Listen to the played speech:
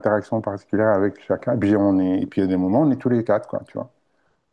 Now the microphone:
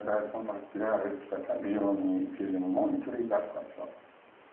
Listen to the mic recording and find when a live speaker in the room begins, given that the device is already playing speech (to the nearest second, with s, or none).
none